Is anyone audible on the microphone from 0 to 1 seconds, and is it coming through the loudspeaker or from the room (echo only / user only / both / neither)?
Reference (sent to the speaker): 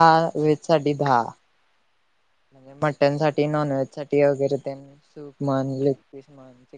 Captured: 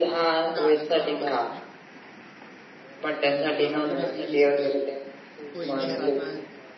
both